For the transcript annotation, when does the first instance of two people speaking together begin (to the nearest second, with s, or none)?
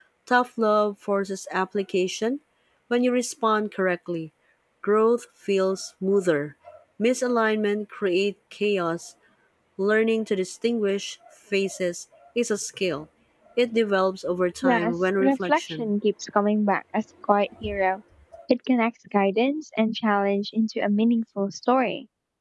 15 s